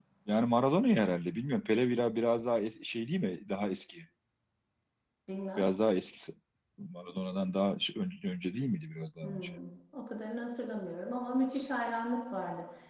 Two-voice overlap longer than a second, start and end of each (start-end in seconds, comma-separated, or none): none